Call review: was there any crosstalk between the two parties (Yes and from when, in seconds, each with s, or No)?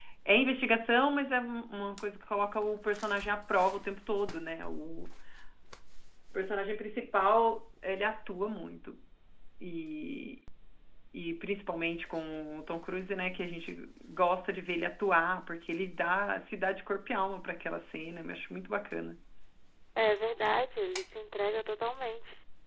No